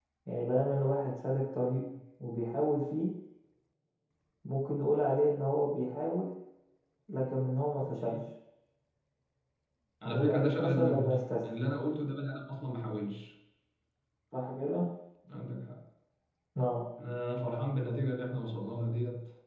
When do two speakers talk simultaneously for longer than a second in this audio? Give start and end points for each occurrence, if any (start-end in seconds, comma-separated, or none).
10.0-11.5